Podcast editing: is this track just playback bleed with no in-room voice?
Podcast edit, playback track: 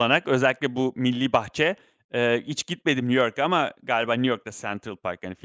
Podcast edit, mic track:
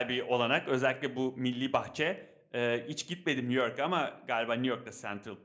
Yes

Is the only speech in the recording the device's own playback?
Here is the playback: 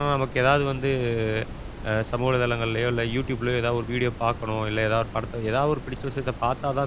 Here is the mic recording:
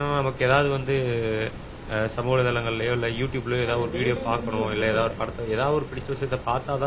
No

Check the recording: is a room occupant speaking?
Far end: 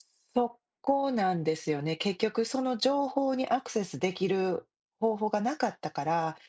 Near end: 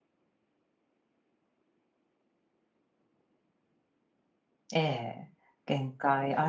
Yes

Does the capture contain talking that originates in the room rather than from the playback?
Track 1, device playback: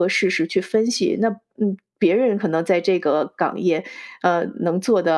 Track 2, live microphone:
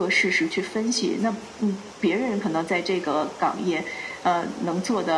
No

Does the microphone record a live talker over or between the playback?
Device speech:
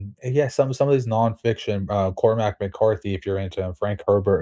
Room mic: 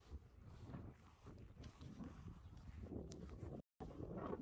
No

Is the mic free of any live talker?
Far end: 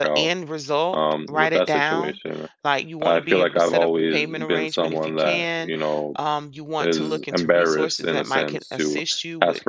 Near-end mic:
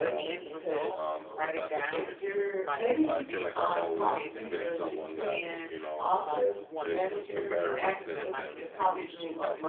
No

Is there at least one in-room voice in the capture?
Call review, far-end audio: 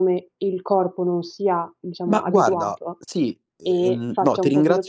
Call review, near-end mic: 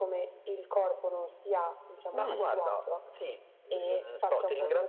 Yes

